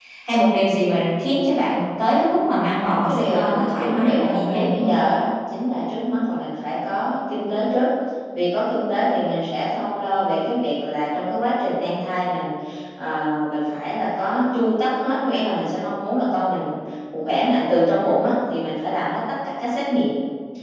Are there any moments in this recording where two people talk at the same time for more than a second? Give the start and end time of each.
3.0-4.9

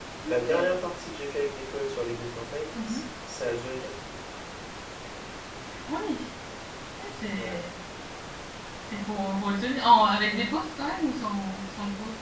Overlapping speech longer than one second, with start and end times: none

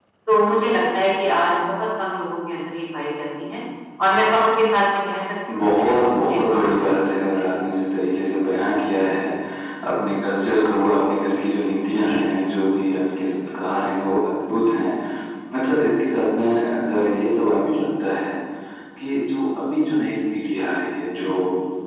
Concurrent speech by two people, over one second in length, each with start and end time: 5.5-7.1

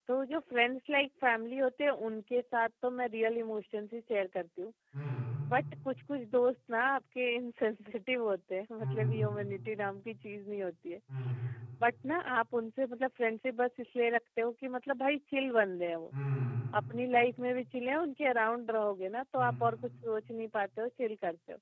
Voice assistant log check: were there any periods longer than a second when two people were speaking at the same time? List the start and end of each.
none

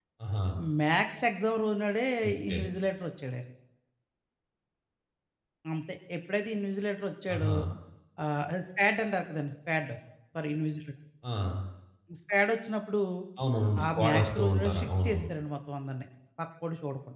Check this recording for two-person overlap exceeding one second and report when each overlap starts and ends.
13.8-15.3

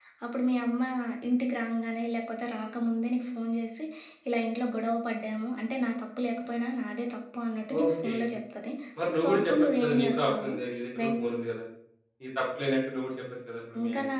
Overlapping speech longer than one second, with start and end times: 9.2-10.5

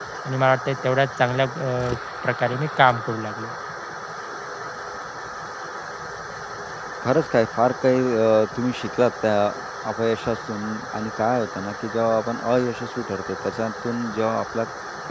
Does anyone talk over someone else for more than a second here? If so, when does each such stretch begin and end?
none

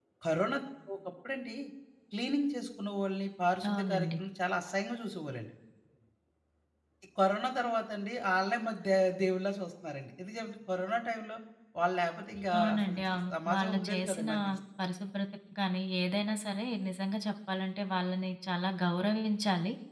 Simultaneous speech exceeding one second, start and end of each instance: 12.6-14.3

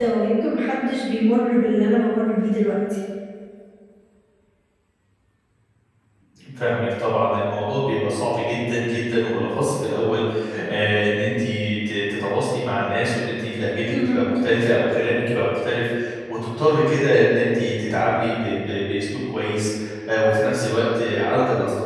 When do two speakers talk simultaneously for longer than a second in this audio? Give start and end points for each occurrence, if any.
none

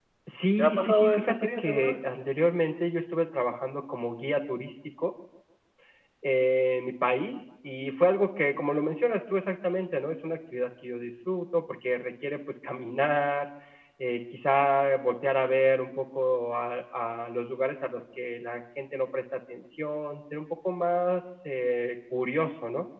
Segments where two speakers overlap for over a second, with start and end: 0.6-1.9

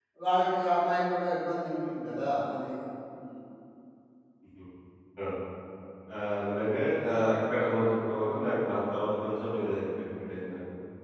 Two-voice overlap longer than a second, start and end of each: none

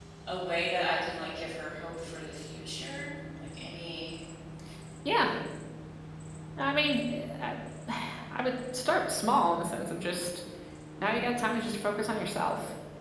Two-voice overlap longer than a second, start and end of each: none

